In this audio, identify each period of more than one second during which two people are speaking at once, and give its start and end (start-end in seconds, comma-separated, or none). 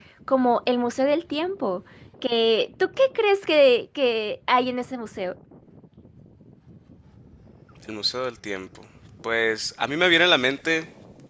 none